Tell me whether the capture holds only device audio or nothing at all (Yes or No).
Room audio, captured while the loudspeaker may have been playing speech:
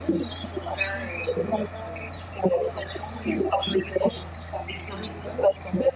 Yes